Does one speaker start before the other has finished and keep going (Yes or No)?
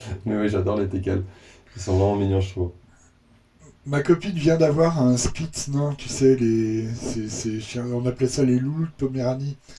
No